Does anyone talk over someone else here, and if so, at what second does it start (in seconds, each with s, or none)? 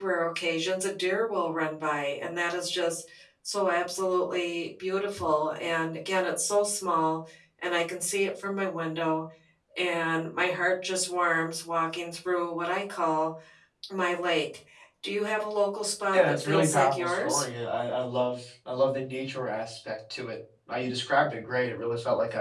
16.1 s